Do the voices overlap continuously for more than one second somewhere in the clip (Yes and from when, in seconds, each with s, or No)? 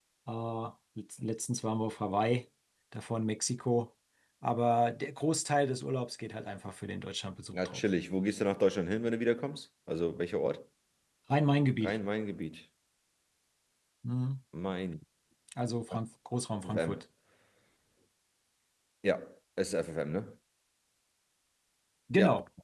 No